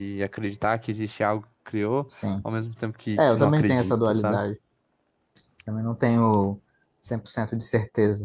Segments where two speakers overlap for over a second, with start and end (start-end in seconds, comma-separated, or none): 3.2-4.4